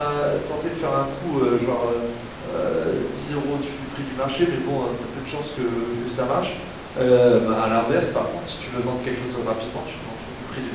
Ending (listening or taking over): taking over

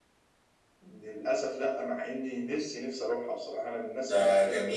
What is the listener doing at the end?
taking over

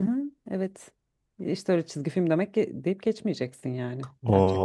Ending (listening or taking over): taking over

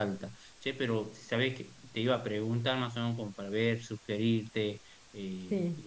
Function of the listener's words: listening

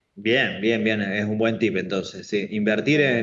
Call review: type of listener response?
listening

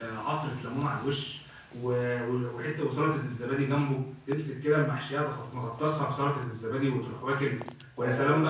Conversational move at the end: listening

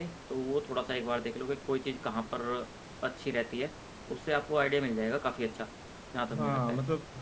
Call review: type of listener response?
taking over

